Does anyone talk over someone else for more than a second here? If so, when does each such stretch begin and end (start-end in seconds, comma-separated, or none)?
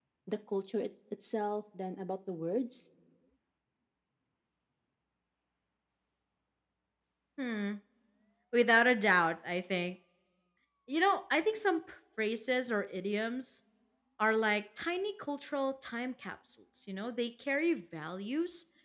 none